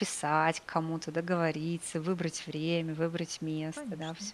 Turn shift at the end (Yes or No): Yes